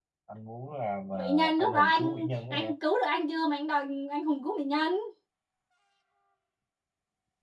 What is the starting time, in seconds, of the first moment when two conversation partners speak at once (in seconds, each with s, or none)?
1.1 s